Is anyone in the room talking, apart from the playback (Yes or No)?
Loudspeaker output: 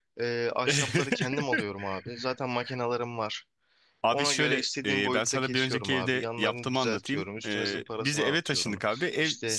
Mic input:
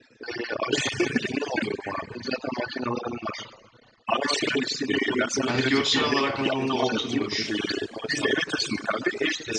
Yes